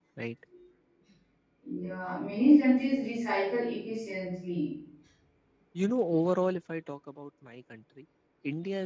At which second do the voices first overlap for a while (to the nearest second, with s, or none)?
none